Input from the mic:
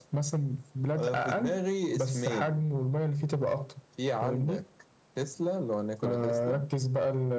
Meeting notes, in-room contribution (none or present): none